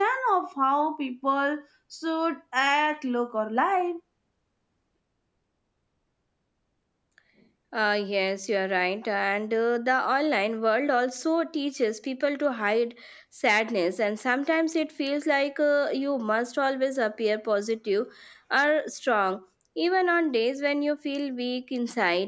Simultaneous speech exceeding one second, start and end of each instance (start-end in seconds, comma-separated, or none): none